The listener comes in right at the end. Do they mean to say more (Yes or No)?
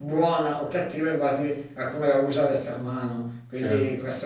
No